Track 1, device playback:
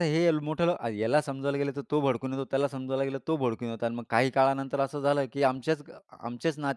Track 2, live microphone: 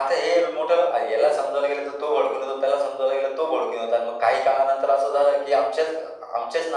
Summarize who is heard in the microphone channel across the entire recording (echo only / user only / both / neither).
echo only